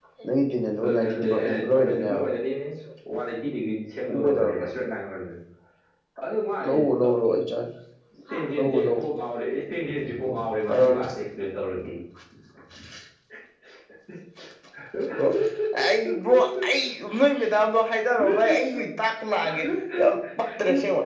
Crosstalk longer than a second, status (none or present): present